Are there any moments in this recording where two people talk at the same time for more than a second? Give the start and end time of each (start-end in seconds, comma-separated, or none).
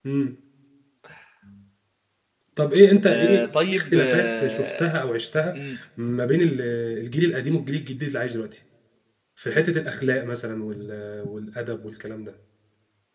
3.1-5.0